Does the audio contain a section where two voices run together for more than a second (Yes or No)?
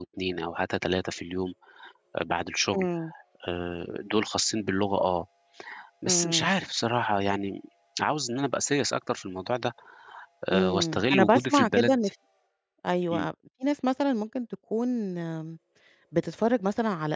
Yes